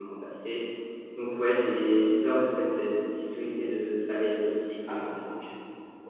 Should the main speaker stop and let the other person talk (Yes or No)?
Yes